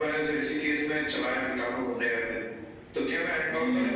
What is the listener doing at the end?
taking over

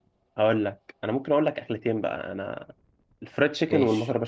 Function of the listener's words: listening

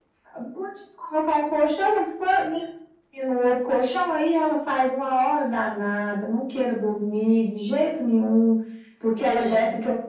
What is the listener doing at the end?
listening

